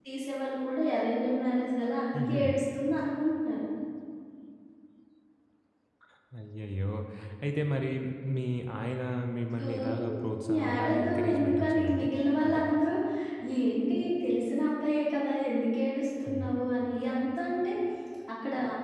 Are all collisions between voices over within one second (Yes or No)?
No